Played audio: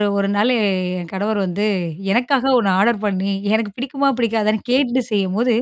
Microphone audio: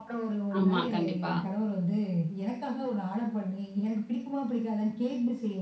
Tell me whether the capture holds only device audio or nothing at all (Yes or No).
No